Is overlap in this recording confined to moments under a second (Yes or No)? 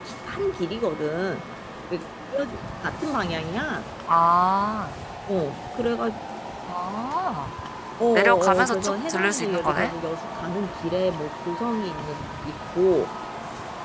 No